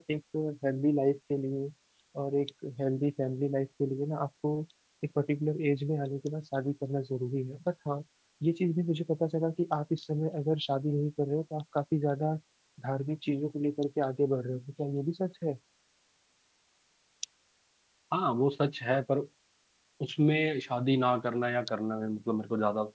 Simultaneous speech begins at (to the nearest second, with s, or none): none